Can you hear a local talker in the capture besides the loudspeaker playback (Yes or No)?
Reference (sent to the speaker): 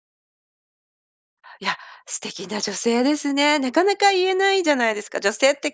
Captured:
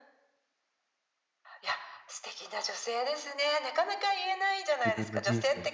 Yes